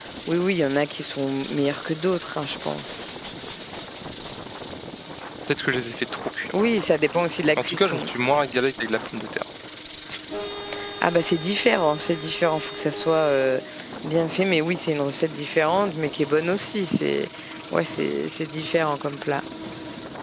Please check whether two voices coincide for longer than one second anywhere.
No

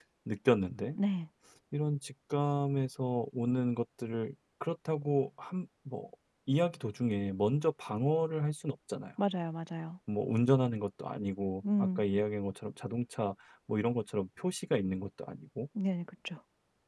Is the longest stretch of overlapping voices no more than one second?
Yes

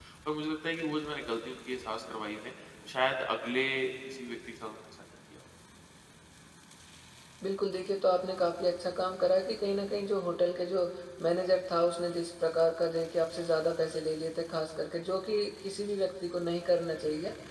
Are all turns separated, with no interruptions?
Yes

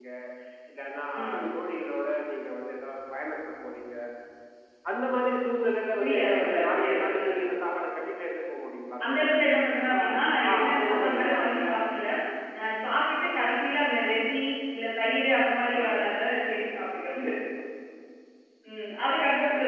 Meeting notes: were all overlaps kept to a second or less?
No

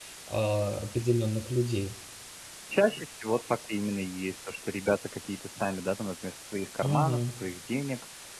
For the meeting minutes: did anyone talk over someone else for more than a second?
No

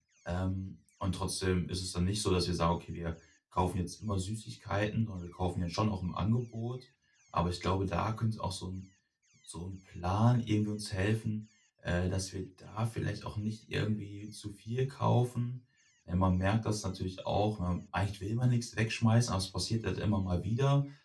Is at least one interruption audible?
No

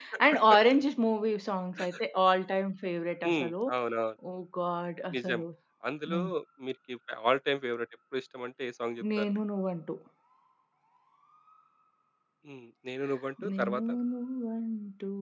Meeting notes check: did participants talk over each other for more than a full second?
No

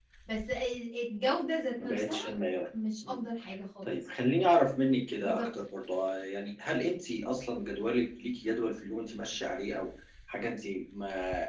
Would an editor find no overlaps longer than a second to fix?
Yes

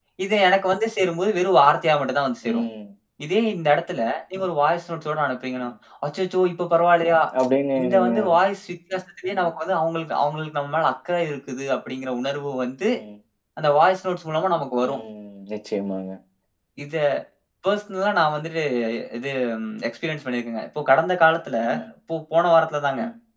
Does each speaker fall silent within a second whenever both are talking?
Yes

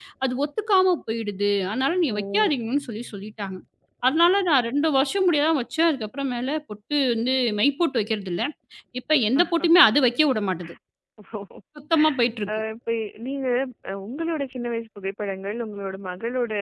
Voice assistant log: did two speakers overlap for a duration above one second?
No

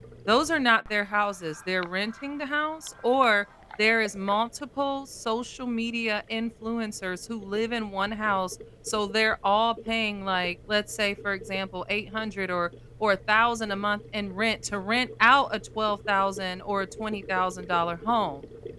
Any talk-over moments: No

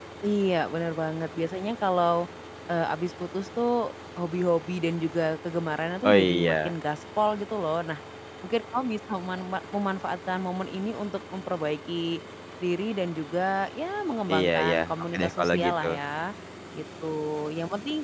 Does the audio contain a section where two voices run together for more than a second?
Yes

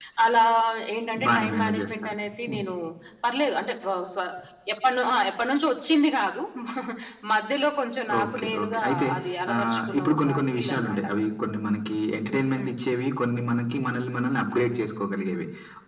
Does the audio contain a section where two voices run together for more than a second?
Yes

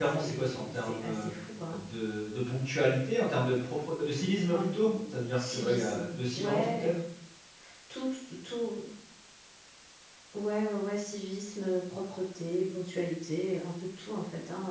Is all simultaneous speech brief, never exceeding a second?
No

